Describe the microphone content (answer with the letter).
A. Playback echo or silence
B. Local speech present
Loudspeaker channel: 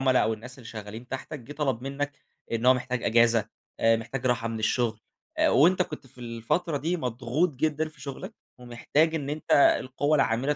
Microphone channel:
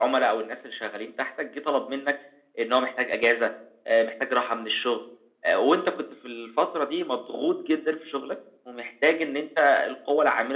A